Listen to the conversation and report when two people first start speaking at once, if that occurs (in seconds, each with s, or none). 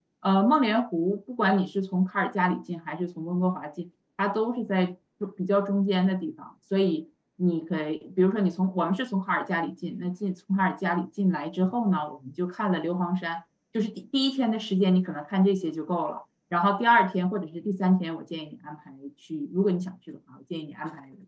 none